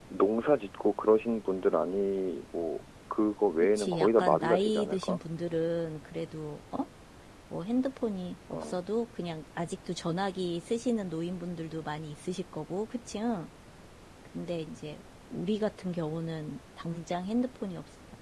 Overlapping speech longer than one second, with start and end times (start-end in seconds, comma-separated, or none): 3.6-5.2